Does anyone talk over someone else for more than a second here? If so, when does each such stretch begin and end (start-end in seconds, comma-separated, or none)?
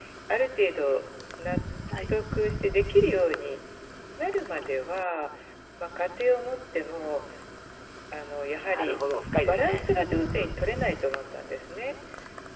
none